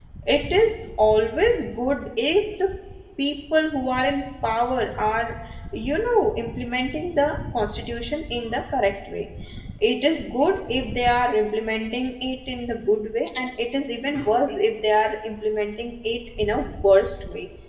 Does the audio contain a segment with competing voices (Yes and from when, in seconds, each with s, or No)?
No